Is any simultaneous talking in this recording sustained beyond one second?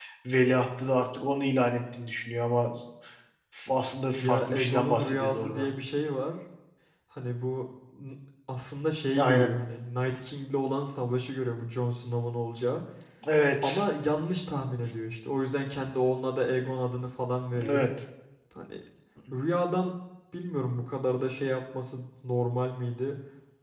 Yes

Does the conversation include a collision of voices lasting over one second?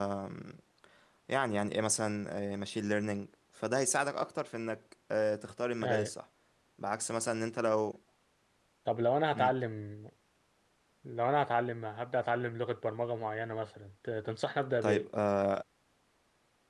No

